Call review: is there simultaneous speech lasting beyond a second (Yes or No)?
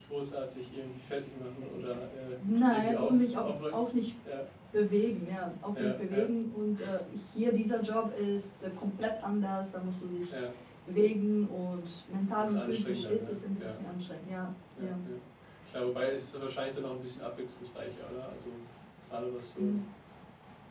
Yes